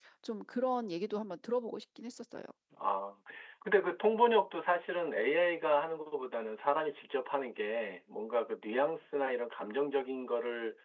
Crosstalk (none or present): none